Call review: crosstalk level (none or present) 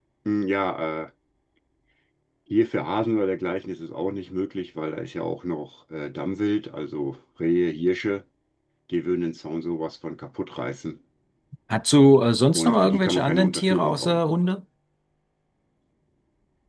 present